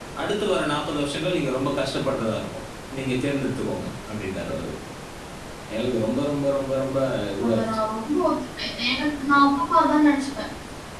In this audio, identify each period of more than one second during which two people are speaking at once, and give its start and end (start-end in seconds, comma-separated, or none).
none